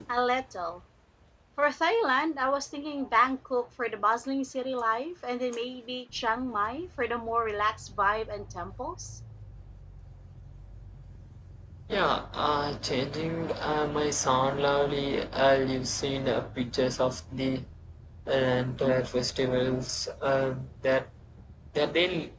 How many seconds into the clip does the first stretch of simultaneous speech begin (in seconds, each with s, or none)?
none